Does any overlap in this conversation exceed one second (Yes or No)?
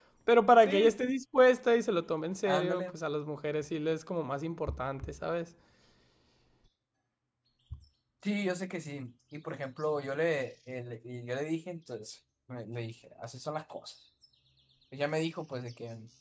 No